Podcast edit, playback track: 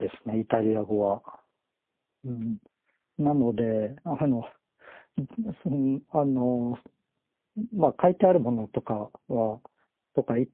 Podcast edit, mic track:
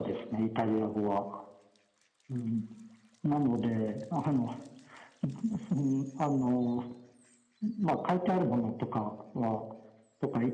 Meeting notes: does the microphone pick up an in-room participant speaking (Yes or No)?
No